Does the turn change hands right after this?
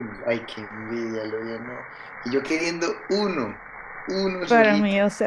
Yes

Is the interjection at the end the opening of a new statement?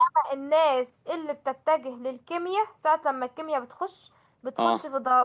No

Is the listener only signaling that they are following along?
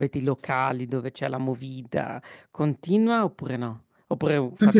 No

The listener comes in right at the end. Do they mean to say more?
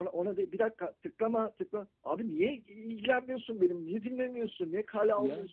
No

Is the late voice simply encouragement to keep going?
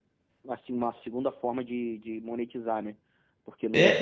Yes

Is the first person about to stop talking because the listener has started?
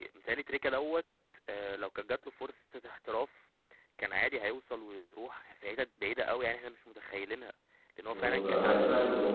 Yes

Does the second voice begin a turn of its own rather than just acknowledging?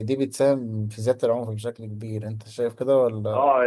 Yes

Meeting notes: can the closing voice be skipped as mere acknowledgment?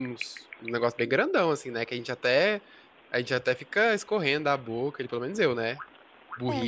Yes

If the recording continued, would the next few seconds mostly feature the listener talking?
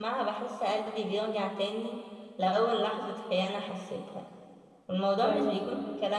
No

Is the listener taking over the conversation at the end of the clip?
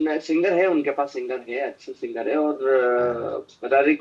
No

